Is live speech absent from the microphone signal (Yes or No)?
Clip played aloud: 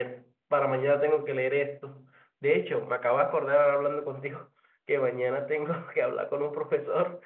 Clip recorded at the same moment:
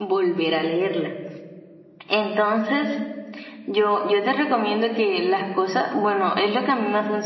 No